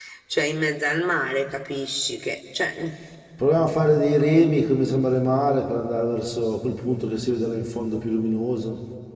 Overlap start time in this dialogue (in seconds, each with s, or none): none